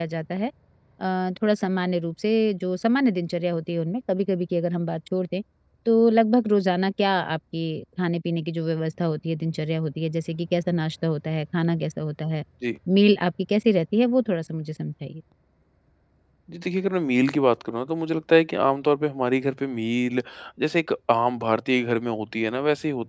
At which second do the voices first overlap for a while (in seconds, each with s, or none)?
none